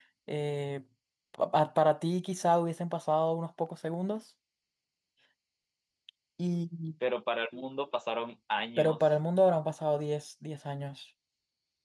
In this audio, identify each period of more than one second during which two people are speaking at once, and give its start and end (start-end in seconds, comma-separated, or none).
none